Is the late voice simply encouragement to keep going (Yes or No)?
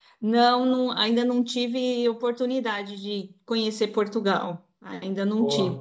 Yes